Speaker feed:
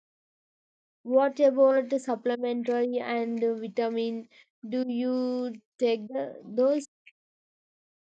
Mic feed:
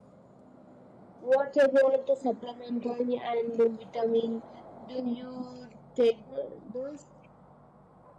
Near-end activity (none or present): none